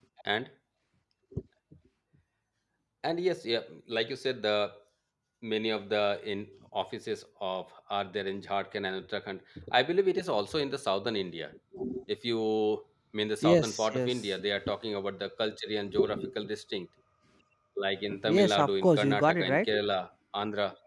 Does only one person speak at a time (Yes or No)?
No